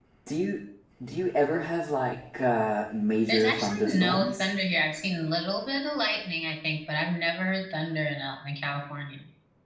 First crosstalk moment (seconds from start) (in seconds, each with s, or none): 3.3 s